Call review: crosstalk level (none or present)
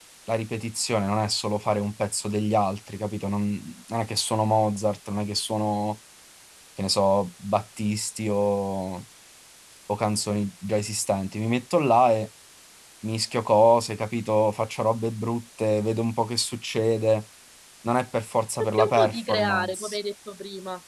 present